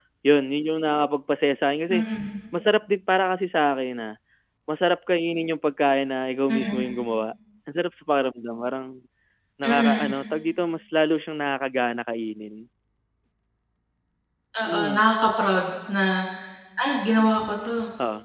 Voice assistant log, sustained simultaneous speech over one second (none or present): none